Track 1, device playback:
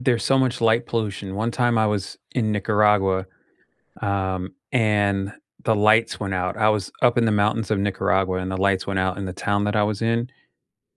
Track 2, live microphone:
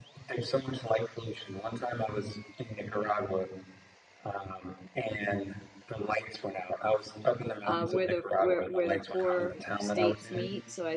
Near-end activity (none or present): present